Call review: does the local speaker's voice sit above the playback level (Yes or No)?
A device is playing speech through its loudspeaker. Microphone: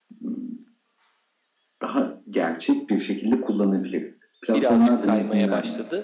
No